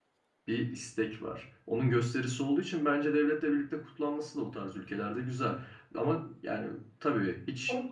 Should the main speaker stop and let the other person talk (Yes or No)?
No